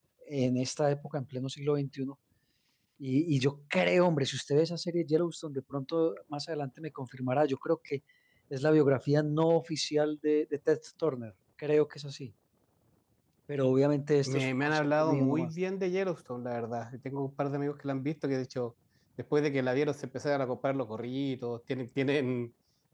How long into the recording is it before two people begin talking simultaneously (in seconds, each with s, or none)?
14.2 s